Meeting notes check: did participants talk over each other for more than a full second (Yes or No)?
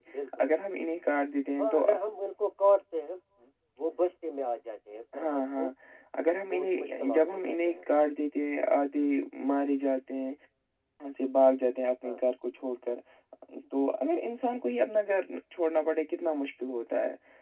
Yes